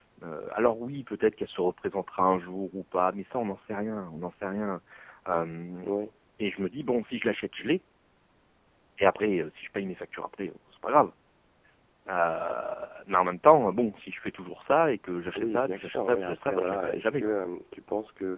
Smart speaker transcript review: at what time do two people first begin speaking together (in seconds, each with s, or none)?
15.3 s